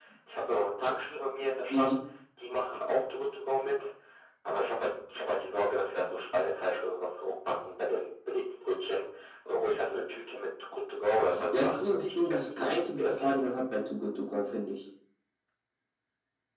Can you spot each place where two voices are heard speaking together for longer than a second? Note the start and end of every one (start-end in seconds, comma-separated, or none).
11.6-13.3